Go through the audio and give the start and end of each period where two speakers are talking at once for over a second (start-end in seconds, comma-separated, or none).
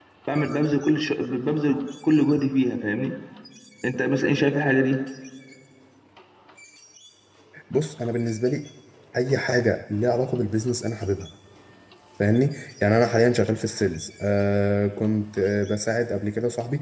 none